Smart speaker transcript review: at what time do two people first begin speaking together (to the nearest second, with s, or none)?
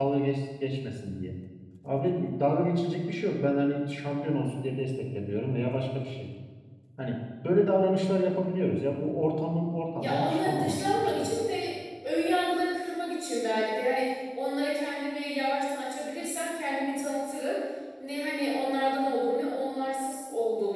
10 s